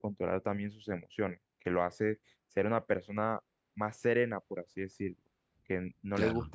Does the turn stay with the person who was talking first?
Yes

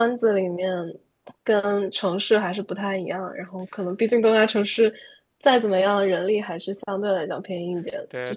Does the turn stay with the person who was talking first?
No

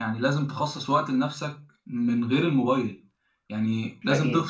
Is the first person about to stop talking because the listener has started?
No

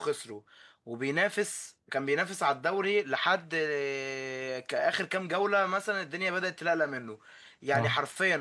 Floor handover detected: No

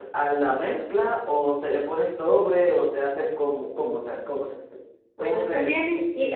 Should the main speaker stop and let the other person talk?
Yes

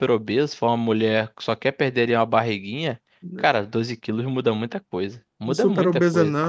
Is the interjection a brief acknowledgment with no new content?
No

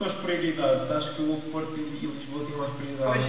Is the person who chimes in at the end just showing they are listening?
No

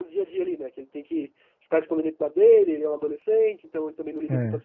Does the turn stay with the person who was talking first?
Yes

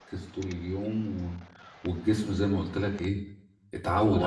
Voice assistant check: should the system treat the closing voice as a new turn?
Yes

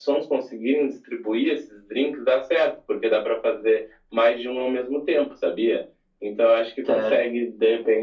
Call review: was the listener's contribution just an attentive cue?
Yes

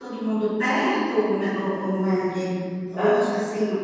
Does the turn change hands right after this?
No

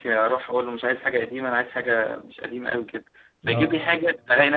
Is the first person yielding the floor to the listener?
No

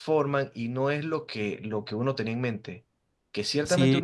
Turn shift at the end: No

